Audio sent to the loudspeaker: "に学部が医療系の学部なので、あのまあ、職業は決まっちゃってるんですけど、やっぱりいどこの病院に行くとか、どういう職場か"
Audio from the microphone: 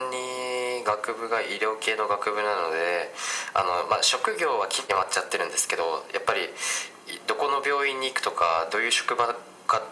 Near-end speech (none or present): none